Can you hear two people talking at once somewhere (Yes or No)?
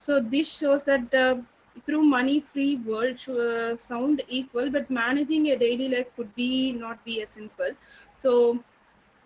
No